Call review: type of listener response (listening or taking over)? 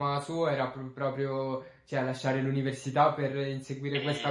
listening